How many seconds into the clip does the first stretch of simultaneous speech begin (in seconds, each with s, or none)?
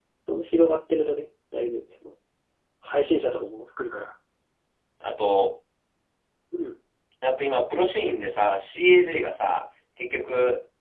none